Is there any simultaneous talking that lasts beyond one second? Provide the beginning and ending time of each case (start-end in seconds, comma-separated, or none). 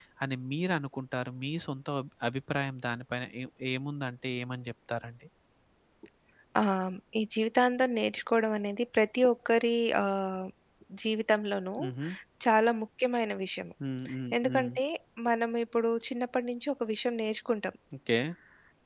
none